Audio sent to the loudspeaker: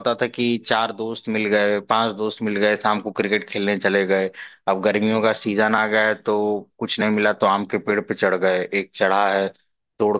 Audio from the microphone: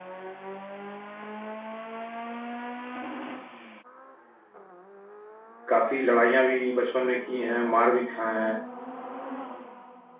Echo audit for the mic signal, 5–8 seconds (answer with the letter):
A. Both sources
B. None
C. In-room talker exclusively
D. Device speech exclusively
C